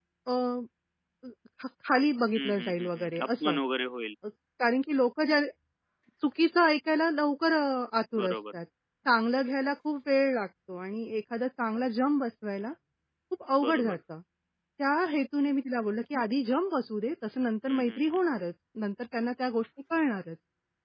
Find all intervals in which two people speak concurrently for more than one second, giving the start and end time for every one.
2.4-3.6

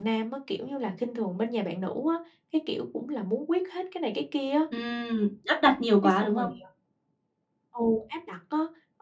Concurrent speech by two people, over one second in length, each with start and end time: none

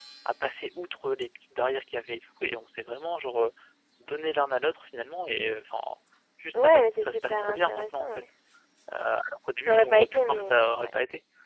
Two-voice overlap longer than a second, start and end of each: 6.5-8.2, 9.7-10.9

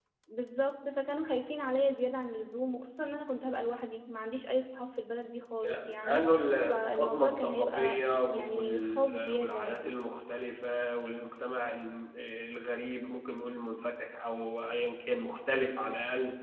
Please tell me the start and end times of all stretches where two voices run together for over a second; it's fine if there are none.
6.7-9.9

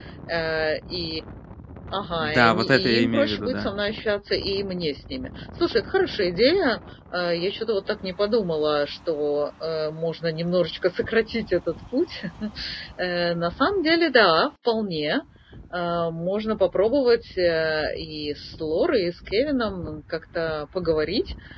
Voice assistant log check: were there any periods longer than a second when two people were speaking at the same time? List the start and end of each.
2.2-3.7

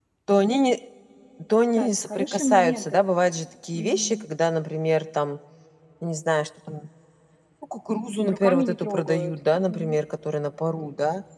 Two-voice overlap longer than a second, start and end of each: 1.8-3.0, 8.3-10.0

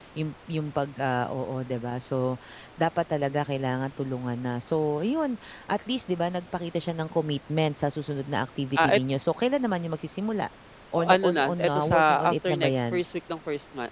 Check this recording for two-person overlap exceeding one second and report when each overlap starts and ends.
10.9-13.0

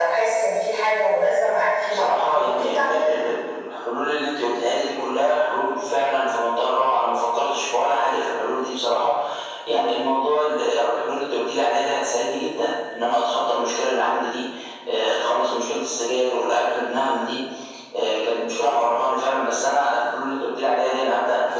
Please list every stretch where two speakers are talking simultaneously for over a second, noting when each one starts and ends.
1.9-3.2

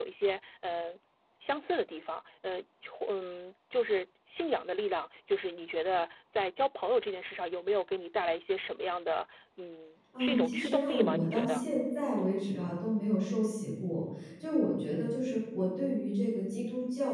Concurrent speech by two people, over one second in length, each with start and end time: 10.2-11.6

